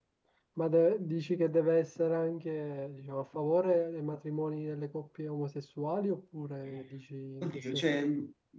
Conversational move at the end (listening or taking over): taking over